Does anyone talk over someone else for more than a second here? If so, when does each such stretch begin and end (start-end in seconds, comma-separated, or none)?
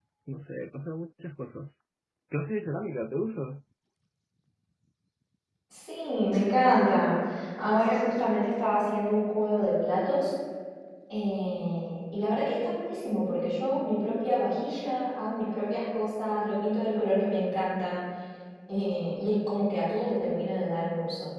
none